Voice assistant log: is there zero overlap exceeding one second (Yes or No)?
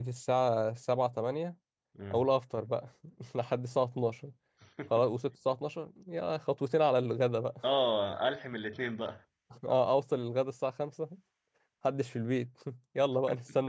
Yes